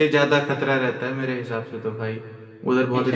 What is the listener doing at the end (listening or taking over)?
taking over